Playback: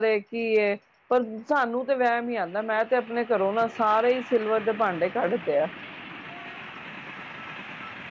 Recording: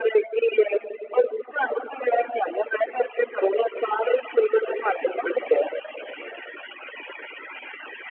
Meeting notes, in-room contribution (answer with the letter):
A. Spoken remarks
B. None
B